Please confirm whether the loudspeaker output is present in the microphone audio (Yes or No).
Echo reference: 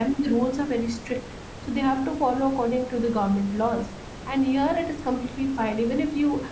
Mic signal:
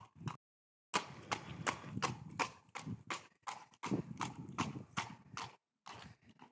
No